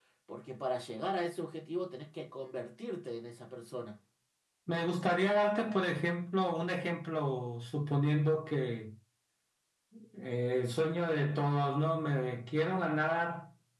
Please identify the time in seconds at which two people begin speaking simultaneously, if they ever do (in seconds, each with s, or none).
none